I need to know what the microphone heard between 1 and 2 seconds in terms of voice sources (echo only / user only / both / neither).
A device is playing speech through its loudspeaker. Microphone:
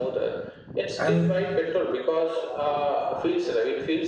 both